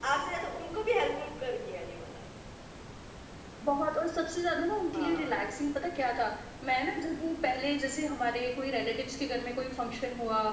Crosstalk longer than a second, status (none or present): none